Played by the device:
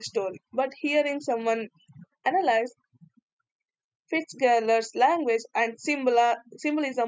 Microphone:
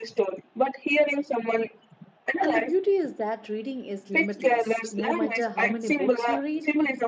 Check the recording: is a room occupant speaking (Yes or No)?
Yes